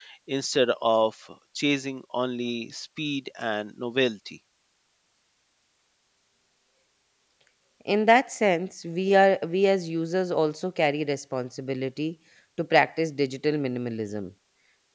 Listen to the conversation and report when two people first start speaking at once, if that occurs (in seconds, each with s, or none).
none